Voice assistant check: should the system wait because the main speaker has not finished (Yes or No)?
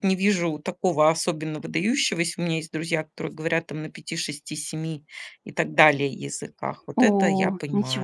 No